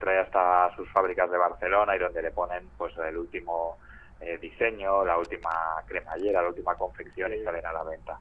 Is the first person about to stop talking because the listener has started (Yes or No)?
No